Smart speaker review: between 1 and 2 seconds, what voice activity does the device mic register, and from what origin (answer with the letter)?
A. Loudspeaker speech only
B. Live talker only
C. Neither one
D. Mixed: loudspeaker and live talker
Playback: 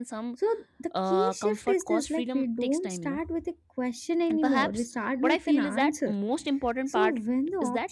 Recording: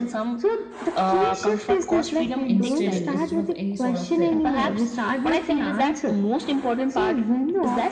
A